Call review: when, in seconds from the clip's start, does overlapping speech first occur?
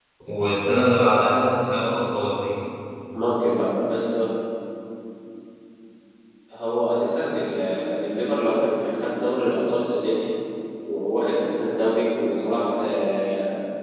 none

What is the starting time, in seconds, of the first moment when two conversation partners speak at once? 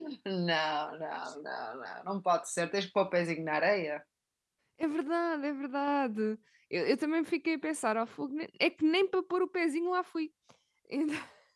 none

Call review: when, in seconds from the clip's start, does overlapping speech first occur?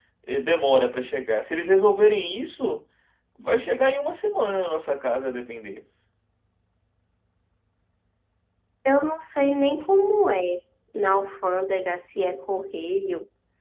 none

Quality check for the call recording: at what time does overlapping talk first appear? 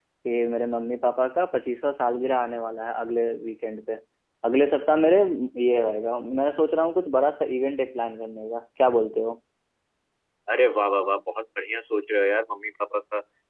none

